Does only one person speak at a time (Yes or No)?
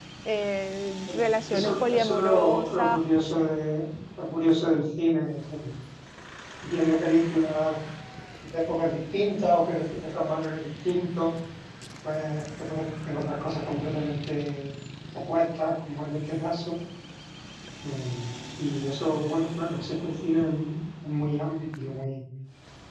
No